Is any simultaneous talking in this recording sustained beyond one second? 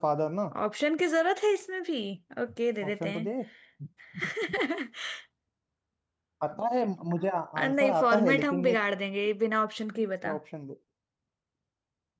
Yes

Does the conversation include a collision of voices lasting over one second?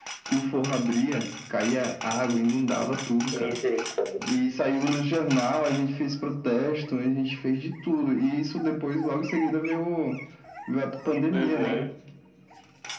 No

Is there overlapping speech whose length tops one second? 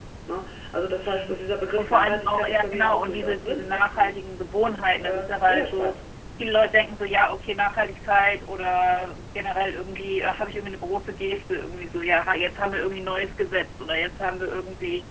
Yes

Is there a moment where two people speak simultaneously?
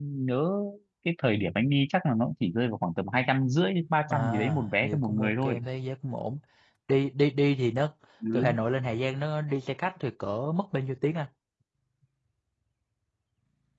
Yes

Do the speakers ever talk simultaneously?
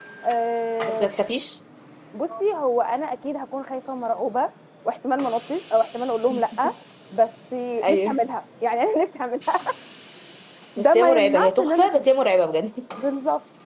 Yes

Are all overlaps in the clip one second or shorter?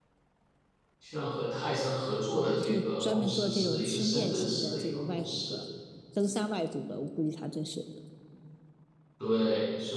No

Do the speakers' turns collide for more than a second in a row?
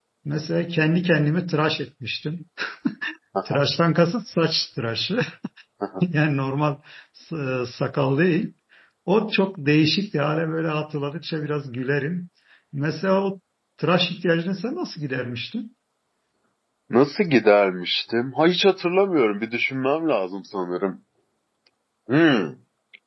No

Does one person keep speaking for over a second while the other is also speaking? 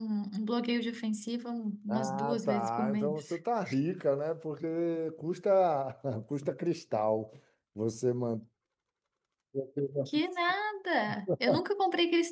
Yes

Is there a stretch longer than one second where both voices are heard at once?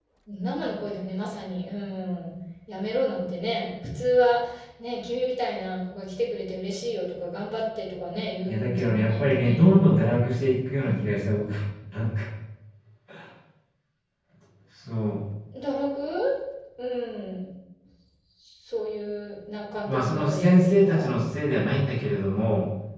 Yes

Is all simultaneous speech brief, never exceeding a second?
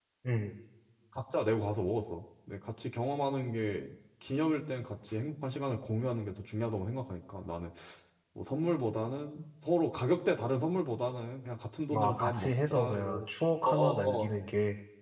No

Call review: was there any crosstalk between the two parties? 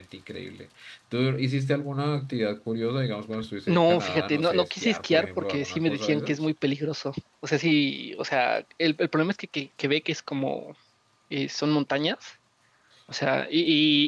Yes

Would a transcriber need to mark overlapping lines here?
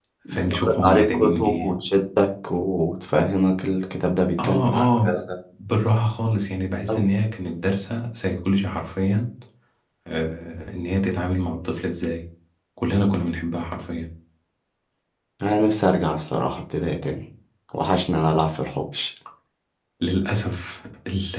Yes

